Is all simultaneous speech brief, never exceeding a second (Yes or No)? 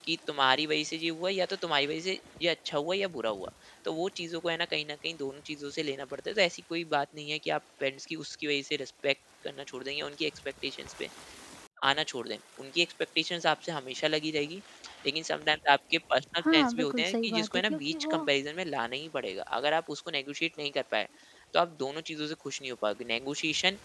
No